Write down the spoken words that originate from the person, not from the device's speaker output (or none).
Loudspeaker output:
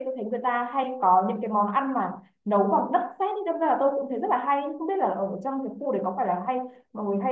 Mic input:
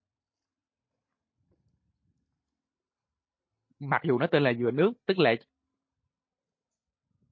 mặc dù nó tên là dừa nước tức là